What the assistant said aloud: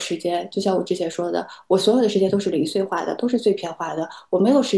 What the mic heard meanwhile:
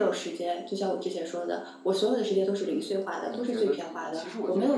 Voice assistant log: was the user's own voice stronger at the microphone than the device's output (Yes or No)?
No